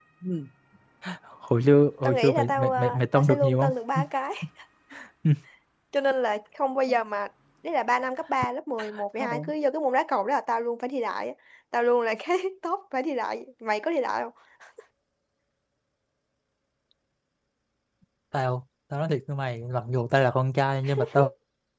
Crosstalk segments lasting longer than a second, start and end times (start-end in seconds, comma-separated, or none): 2.0-4.0